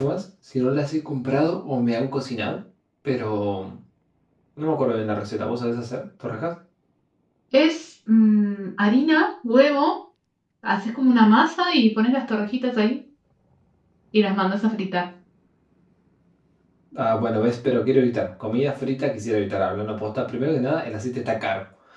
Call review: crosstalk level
none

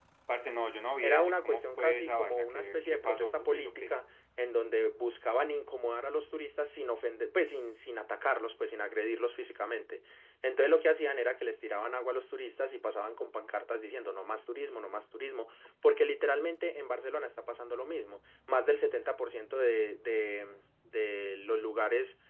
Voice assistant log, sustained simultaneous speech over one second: present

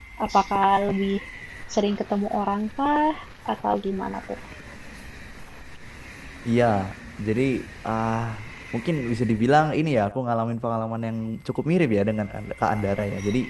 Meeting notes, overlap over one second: none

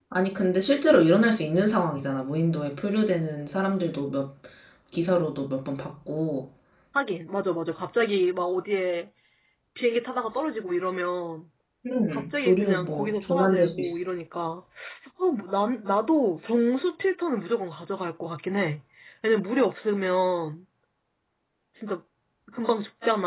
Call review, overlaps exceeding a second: present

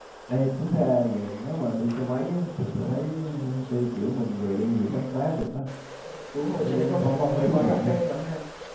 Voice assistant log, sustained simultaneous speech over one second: present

